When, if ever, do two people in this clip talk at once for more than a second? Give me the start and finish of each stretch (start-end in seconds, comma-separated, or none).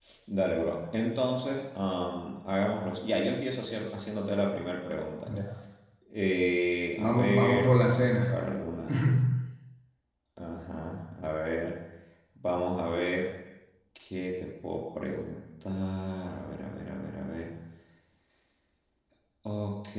7.0-8.4